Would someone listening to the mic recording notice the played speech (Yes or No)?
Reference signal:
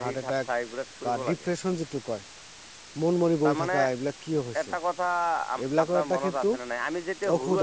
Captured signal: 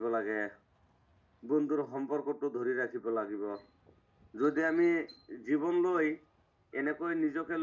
No